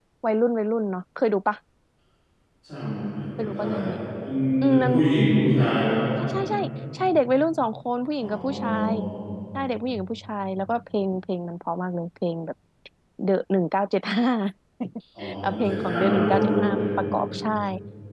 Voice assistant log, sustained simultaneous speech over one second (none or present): present